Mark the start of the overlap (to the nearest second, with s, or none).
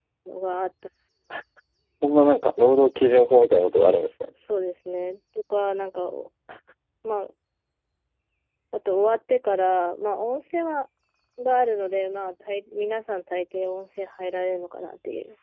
none